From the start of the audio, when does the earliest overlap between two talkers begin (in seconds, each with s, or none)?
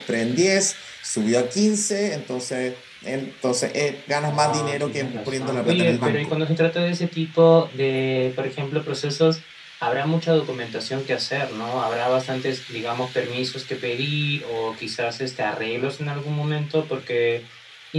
4.2 s